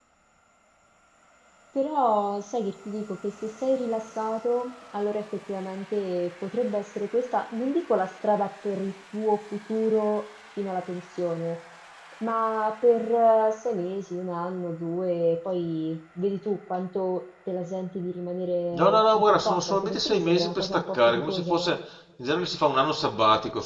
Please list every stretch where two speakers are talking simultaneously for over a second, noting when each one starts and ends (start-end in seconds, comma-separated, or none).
18.7-21.8